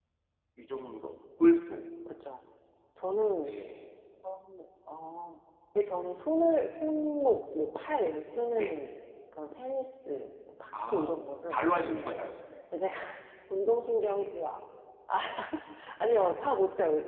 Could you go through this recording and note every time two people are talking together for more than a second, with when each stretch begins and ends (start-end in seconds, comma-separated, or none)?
10.9-12.3